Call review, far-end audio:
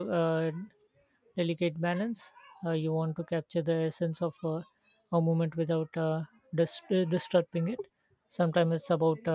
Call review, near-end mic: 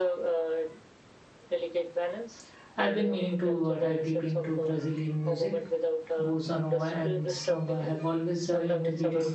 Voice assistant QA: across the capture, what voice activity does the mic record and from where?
both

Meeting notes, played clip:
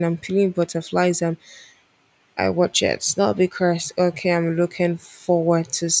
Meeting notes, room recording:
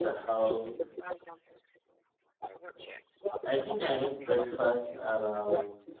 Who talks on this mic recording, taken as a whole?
both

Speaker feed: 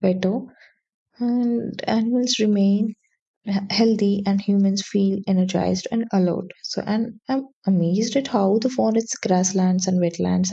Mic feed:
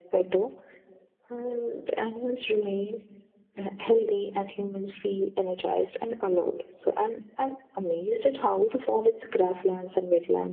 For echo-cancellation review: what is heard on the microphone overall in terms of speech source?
echo only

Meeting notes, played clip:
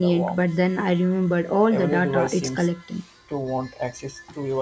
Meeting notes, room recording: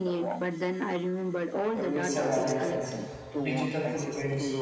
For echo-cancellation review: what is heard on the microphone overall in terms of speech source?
both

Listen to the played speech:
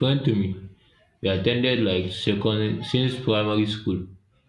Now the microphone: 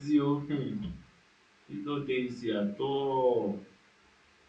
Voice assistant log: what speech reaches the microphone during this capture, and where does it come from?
user only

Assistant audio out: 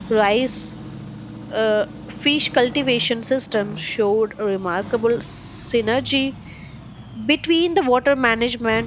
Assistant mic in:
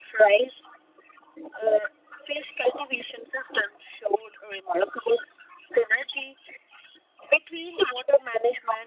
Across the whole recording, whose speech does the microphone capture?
echo only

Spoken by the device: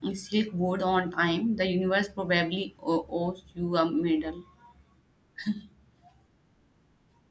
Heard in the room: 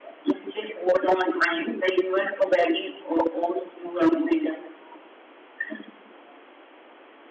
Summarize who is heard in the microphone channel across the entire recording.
echo only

